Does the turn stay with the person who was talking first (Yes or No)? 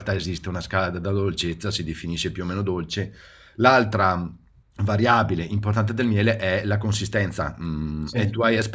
Yes